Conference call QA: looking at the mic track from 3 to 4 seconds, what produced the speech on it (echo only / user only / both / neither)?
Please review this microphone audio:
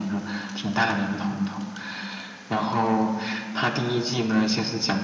echo only